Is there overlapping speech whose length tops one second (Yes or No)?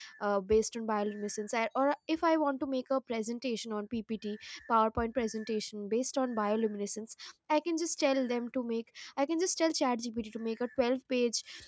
No